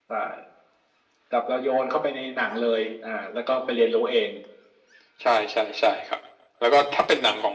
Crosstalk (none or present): none